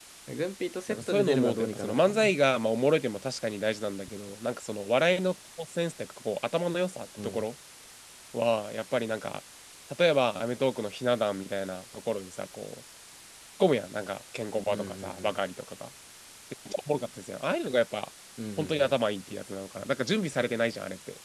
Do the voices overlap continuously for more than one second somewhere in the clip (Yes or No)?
Yes